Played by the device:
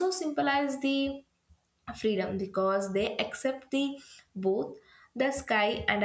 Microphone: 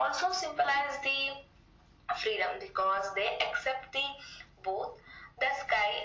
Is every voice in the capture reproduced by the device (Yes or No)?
Yes